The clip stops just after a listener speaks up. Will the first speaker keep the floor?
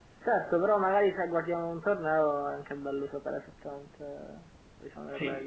No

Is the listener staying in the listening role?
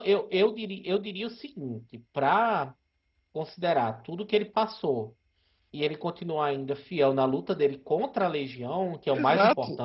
Yes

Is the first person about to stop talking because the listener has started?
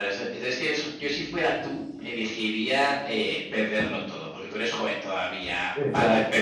No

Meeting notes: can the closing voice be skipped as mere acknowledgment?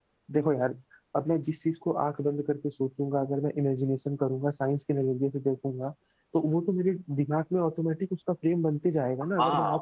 No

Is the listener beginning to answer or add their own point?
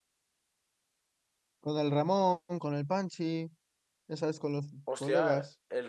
Yes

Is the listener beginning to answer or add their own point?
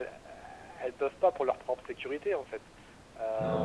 No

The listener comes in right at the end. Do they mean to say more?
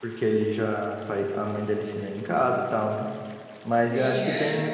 No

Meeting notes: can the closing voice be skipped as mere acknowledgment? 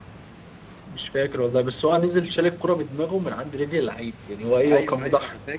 No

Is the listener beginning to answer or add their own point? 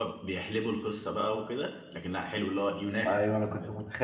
Yes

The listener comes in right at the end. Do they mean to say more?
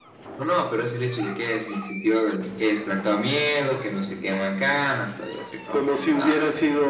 Yes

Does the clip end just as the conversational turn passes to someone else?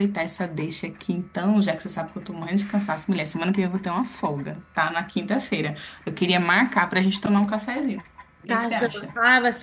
Yes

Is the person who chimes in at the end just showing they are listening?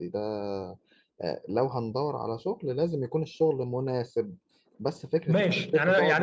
No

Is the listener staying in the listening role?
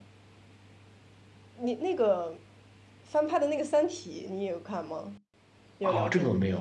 No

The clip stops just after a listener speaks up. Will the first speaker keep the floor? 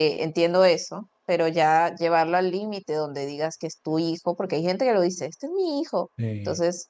Yes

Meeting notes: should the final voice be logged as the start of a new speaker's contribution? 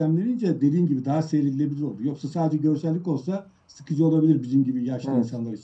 Yes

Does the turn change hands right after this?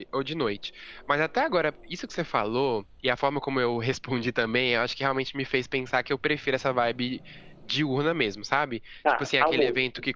No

